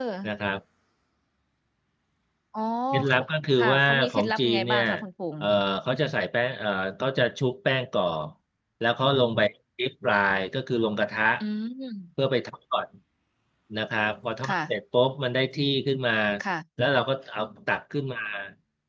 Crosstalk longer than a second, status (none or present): present